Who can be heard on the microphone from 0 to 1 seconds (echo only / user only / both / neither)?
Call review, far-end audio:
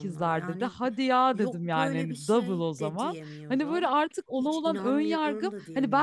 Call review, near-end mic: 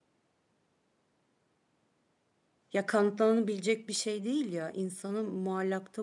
neither